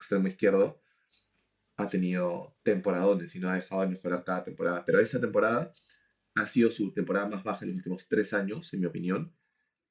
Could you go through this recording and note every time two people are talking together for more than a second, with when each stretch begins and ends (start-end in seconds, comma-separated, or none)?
none